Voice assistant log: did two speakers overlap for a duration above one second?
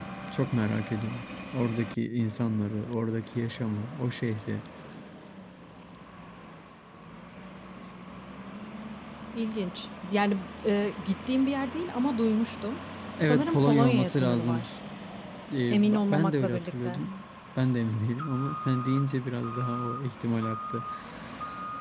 Yes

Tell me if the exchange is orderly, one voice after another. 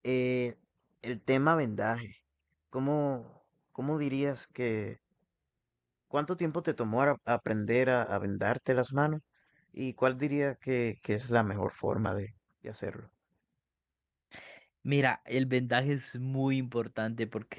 Yes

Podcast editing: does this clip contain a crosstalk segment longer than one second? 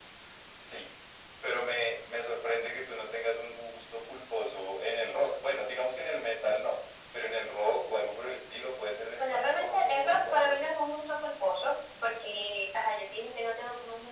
Yes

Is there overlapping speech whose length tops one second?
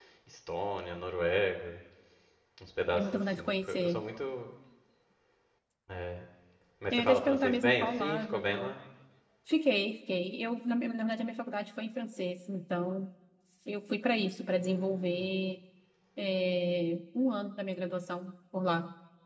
Yes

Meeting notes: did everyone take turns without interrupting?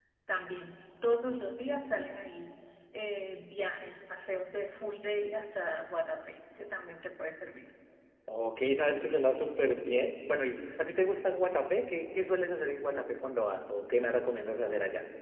Yes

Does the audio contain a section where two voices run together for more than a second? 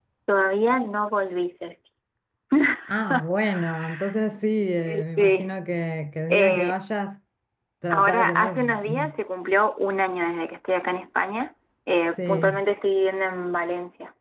Yes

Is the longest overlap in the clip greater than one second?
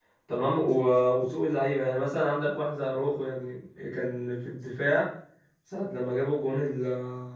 No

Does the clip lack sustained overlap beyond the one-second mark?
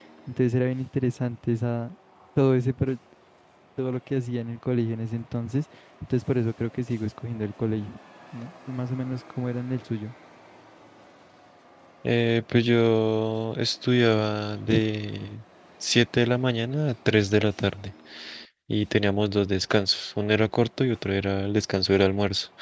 Yes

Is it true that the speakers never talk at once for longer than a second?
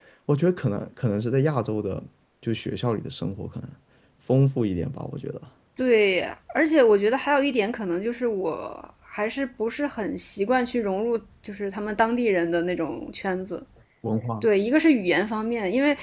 Yes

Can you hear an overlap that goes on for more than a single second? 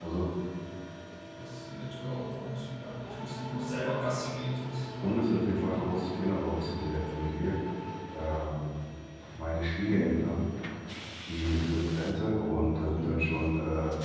No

